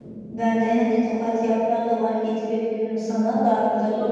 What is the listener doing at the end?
taking over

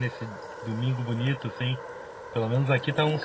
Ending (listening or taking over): taking over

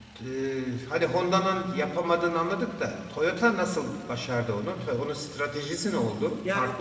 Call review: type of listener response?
taking over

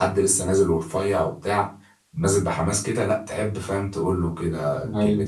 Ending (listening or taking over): listening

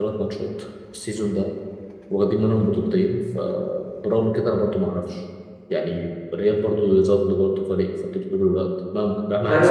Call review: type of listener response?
taking over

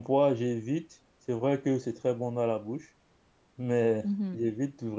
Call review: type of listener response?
listening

